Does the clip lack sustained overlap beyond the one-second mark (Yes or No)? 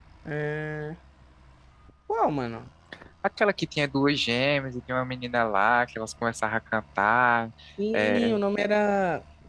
Yes